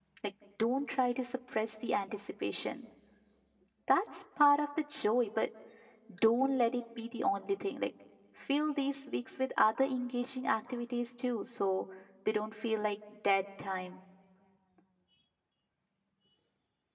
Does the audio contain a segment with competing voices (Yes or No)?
No